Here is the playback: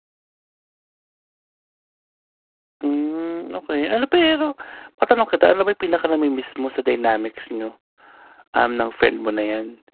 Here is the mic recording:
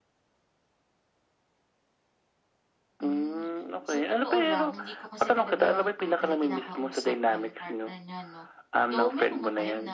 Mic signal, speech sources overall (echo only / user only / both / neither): both